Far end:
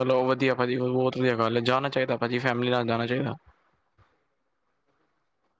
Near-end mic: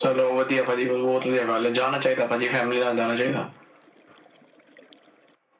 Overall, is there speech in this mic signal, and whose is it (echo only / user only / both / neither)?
echo only